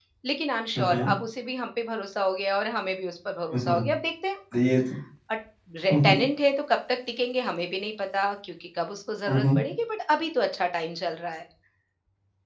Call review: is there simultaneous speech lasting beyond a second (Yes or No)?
No